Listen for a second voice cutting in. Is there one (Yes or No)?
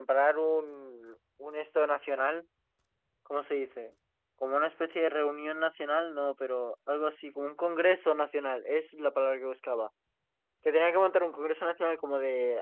No